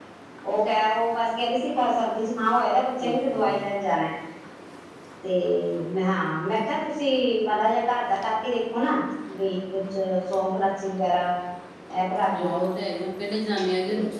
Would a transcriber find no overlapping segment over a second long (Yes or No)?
Yes